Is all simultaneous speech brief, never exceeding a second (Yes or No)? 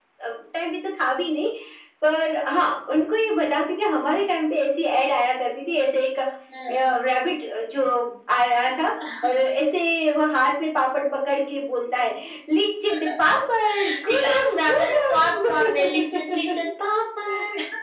No